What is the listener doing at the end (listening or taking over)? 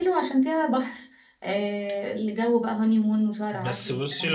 taking over